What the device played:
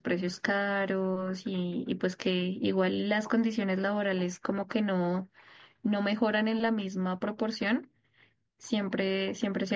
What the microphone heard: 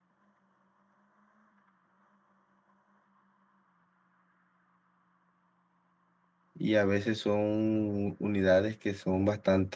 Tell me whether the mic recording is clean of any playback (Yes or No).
Yes